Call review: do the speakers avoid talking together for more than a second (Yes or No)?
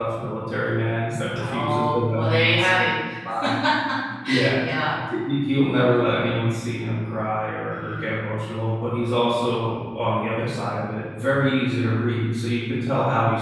No